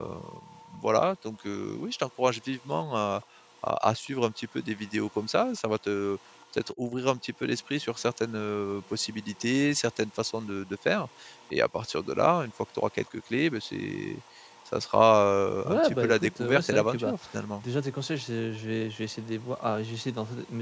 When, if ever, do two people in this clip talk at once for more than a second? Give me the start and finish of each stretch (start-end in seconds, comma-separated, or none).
15.6-17.2